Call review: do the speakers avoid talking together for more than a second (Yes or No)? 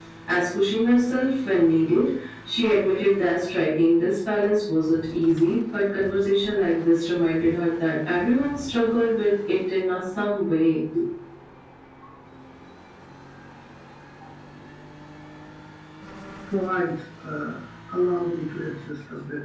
Yes